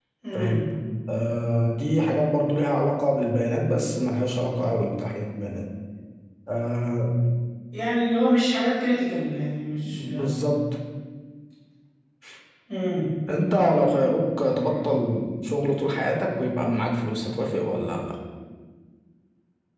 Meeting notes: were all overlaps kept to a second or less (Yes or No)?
Yes